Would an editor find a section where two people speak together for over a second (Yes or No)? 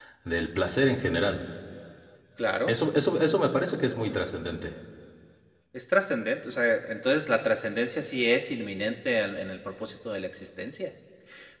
No